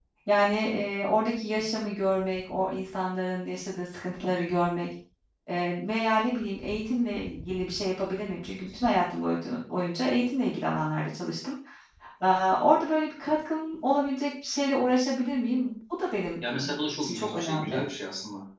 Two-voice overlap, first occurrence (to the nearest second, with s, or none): 16 s